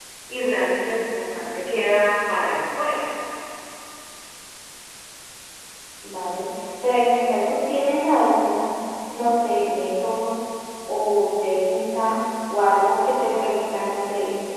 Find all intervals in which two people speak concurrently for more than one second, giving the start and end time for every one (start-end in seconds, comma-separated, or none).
none